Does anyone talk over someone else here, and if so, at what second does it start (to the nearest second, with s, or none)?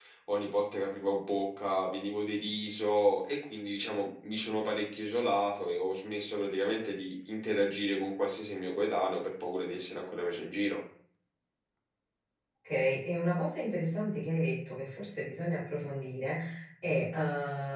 none